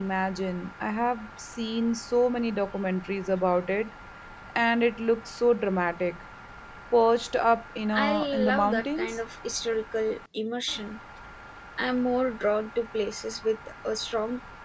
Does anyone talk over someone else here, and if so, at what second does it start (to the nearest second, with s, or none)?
8 s